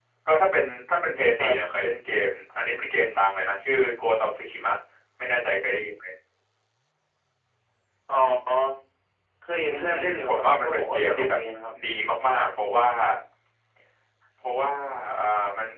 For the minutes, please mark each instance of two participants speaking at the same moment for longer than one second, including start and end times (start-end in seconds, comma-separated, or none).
9.8-11.4